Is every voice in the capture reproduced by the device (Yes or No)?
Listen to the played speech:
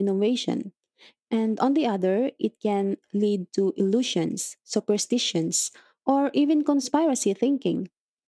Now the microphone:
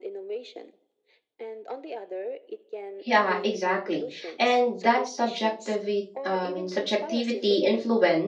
No